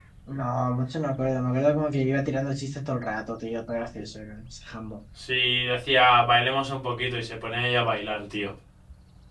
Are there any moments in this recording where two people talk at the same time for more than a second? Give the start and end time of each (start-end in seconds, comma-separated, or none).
none